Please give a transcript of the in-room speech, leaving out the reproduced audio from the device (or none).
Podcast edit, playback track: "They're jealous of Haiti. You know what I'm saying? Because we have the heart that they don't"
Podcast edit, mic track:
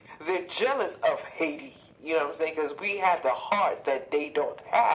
none